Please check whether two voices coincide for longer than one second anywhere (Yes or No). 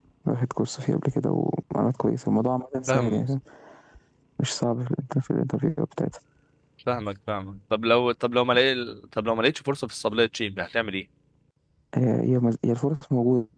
No